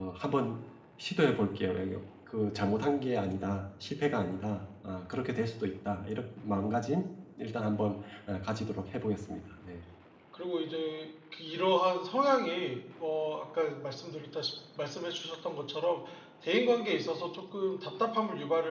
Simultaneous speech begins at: none

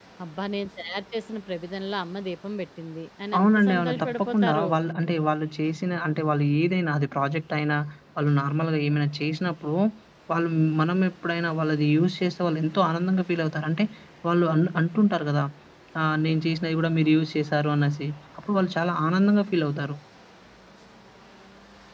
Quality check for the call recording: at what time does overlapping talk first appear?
3.3 s

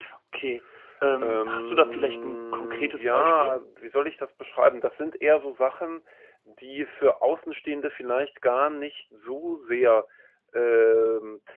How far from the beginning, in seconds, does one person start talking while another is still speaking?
1.2 s

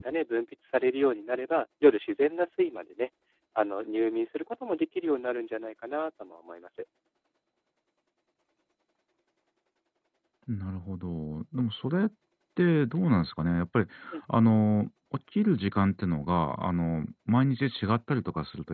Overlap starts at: none

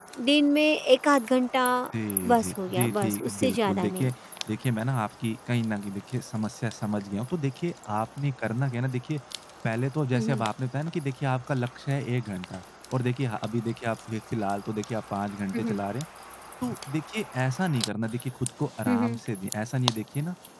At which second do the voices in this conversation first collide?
2.3 s

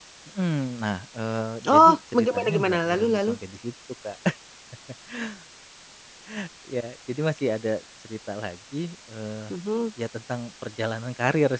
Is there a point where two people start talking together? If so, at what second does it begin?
1.6 s

